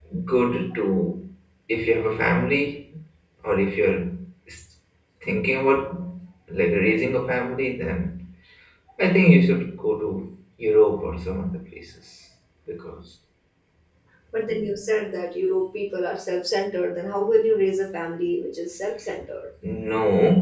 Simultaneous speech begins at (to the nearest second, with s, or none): none